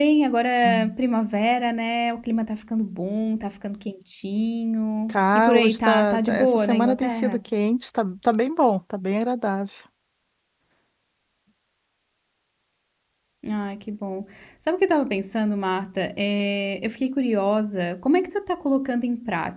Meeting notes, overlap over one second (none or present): present